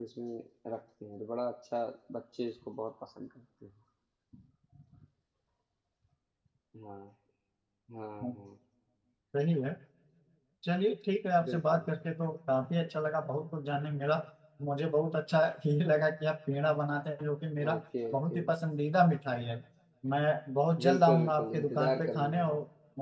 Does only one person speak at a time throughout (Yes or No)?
No